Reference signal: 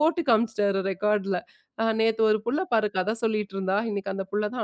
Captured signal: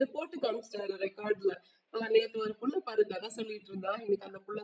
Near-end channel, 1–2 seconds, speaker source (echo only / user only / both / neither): echo only